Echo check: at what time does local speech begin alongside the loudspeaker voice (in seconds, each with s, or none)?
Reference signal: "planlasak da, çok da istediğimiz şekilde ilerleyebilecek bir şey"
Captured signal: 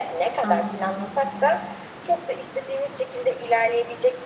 0.5 s